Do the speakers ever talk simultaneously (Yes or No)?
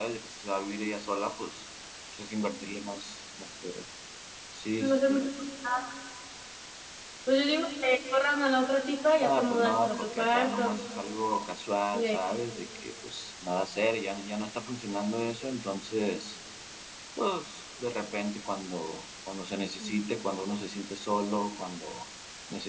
Yes